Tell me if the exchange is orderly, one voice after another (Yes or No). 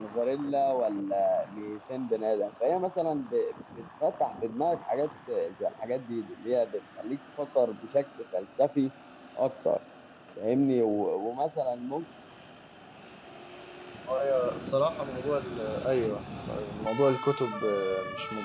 Yes